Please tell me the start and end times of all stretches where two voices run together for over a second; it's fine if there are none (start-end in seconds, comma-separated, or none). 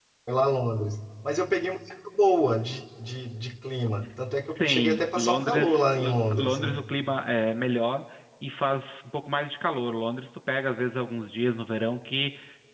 4.6-6.8